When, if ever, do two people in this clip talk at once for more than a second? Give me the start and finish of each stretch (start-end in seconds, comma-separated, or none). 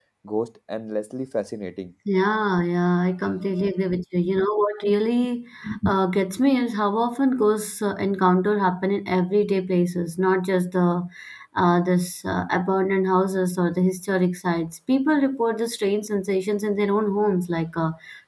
none